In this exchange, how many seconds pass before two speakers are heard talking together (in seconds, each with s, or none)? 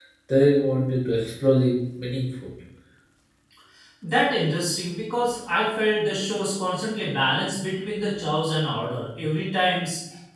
none